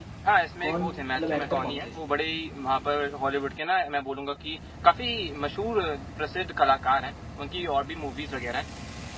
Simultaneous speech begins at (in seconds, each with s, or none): 0.7 s